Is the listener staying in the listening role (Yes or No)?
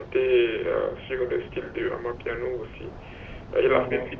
Yes